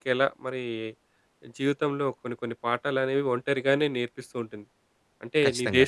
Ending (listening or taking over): listening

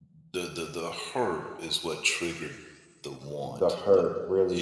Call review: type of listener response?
taking over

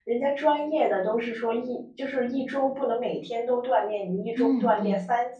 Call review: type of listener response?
listening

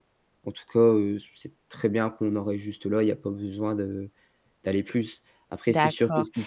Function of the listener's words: taking over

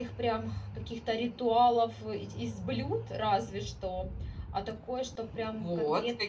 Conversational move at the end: taking over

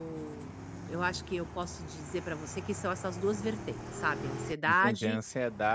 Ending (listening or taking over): taking over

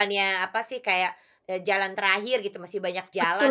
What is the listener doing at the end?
taking over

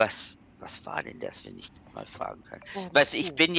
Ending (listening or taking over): listening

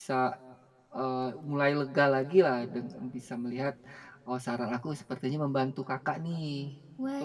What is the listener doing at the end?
taking over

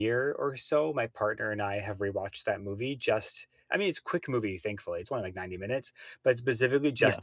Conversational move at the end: listening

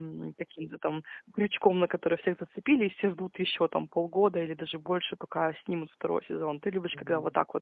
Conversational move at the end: taking over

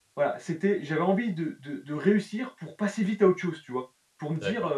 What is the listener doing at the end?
listening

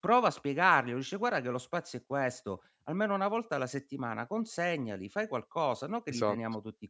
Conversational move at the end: listening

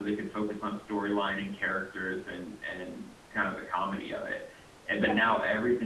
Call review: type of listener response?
listening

